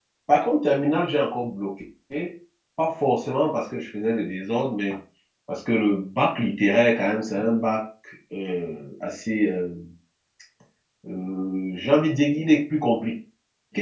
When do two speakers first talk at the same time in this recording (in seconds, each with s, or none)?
none